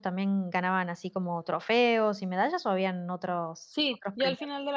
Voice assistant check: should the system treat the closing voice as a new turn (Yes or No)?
Yes